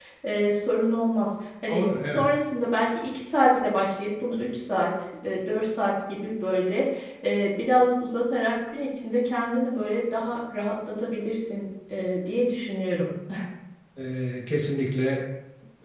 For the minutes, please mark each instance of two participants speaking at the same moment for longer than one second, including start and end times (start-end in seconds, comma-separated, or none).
none